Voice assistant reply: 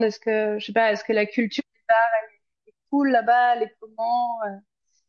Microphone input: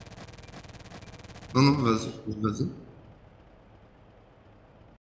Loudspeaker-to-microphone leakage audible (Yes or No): No